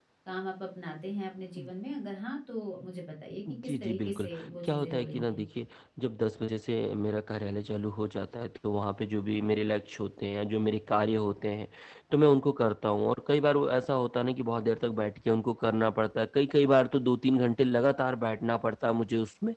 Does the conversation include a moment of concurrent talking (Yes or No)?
Yes